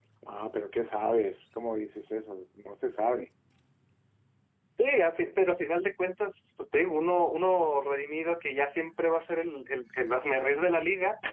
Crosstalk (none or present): none